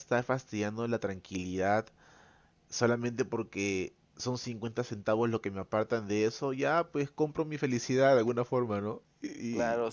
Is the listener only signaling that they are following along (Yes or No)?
No